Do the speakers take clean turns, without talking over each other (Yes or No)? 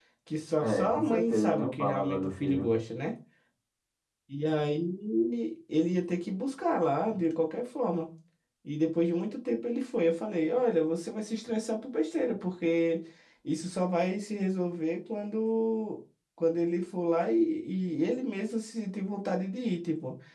No